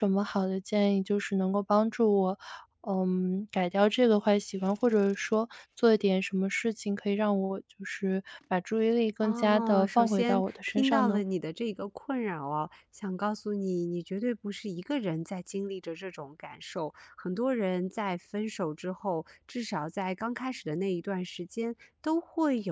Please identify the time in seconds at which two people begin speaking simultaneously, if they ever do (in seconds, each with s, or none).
9.2 s